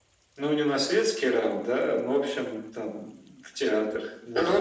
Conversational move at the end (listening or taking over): taking over